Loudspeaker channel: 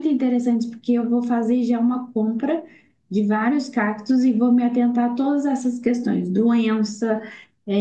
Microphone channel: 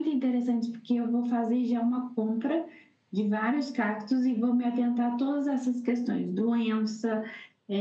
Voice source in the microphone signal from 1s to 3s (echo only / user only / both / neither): echo only